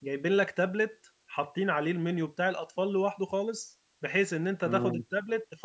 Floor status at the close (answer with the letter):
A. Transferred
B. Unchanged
B